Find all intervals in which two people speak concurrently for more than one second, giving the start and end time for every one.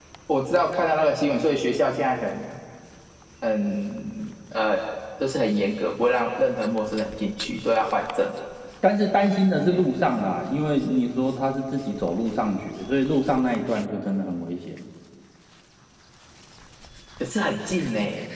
none

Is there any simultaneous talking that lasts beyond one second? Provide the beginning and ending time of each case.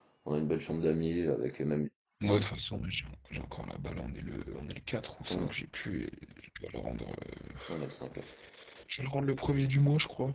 none

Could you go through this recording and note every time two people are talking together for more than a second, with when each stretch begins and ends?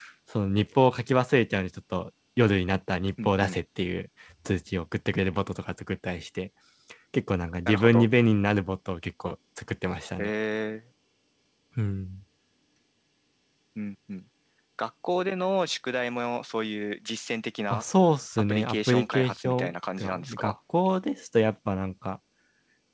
18.5-20.5

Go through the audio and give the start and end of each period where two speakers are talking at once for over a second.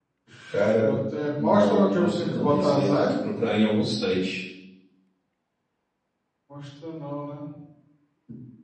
1.4-3.1

